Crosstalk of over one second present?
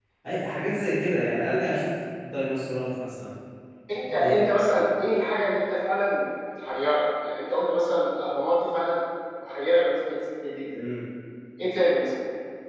No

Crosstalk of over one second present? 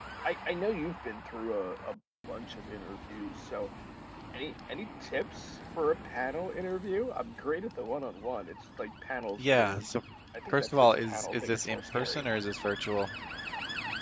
Yes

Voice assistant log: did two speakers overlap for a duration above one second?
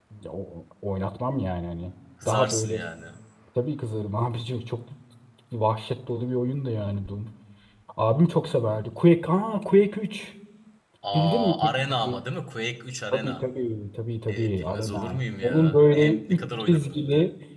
Yes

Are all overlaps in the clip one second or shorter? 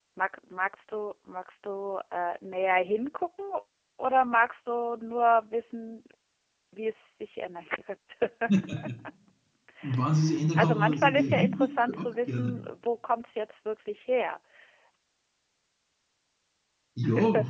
No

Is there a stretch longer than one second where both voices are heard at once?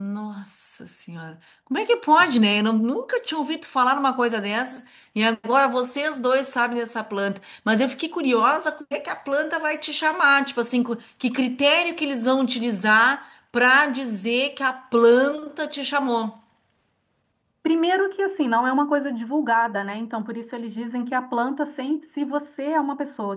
No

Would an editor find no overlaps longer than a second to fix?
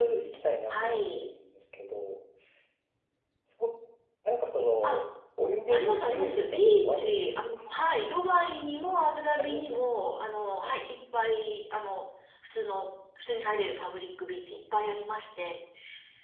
No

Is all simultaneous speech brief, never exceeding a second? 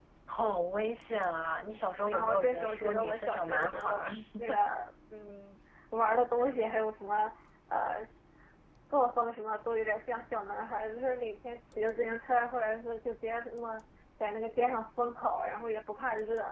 No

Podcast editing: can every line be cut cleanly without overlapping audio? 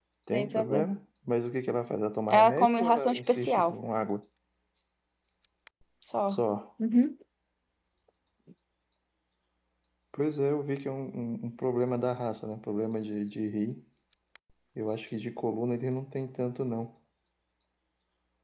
No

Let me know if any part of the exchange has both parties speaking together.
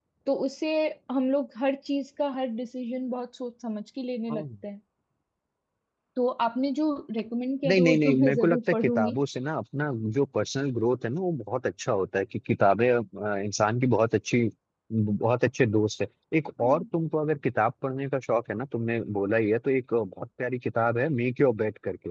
Yes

